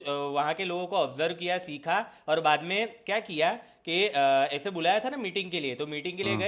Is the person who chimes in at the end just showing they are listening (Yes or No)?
Yes